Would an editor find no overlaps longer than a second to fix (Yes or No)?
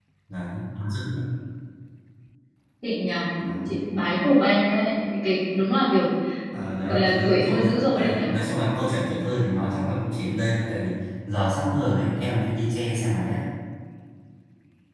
No